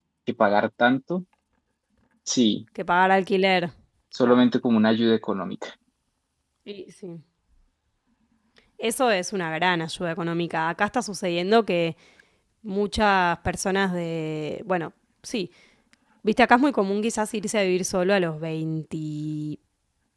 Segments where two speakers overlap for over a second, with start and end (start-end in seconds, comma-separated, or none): none